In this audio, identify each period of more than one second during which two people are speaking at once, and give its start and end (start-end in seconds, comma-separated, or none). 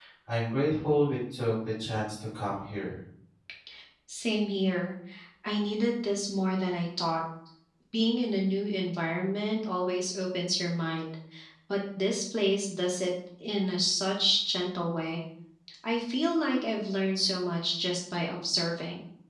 none